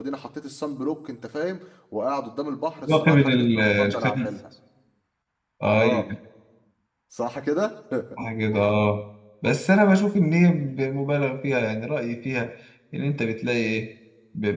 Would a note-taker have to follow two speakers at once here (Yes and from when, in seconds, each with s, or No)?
Yes, from 2.9 s